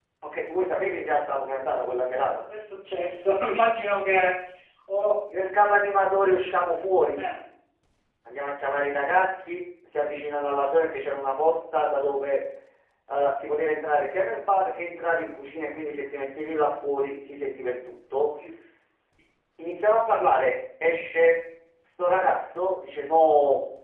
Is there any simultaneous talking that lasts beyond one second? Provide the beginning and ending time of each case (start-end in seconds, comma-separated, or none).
none